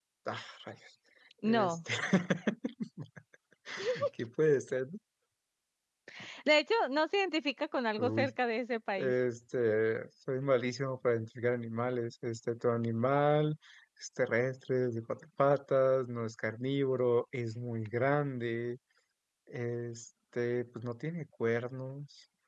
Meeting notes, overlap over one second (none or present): none